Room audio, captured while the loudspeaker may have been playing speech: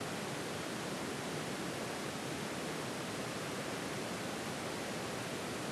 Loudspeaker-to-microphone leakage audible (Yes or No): No